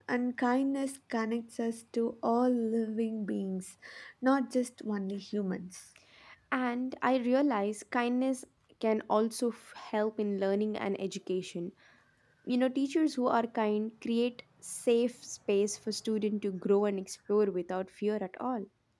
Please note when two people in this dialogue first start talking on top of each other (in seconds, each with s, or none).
none